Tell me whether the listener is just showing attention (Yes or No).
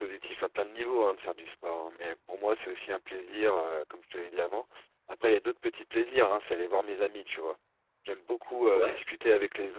Yes